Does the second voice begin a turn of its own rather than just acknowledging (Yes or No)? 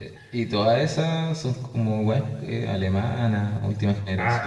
Yes